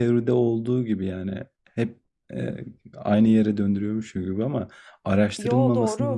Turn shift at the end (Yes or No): No